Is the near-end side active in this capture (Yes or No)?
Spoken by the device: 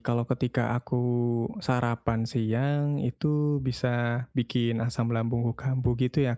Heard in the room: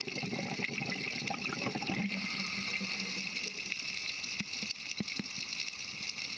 No